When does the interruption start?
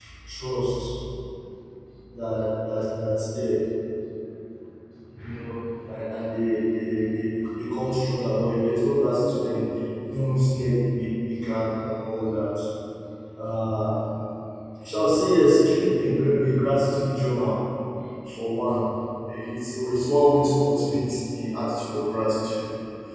none

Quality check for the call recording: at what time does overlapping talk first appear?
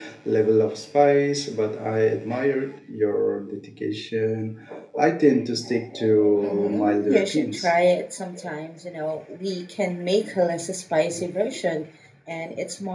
6.4 s

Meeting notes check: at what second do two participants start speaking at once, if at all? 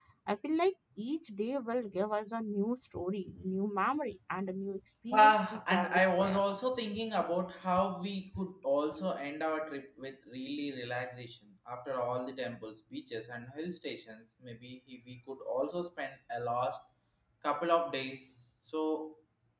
5.1 s

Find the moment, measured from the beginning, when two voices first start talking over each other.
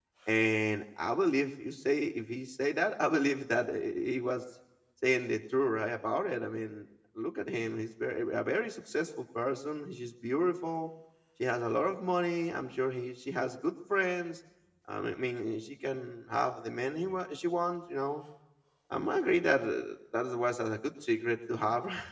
none

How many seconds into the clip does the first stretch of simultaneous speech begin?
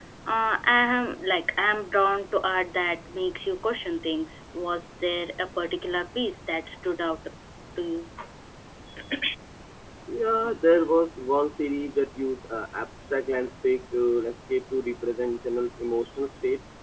none

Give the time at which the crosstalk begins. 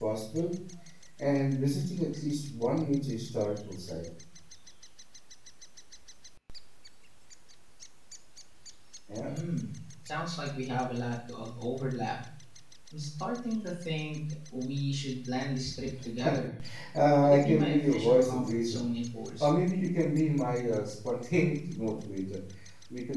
17.2 s

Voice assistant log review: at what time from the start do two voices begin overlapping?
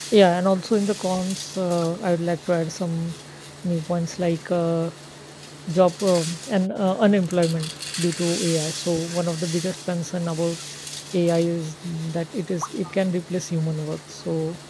none

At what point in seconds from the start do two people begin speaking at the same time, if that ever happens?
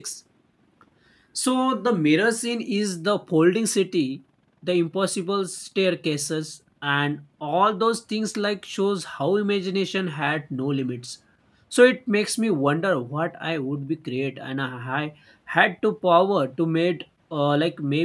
none

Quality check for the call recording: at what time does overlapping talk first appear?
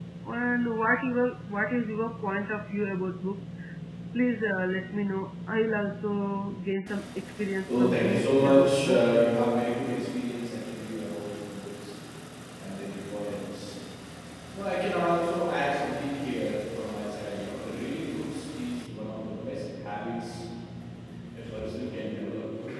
7.7 s

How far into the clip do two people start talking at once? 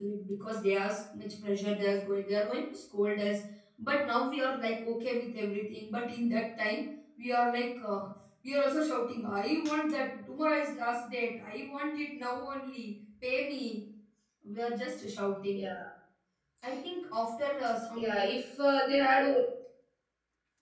none

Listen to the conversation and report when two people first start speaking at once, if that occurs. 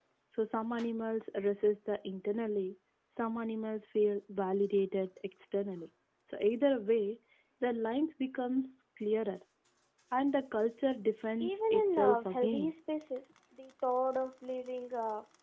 11.4 s

